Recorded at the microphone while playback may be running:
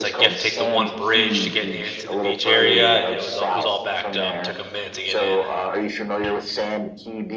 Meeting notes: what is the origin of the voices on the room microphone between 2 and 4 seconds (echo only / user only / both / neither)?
both